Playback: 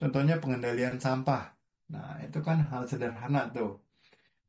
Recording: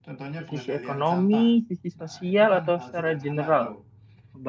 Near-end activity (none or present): present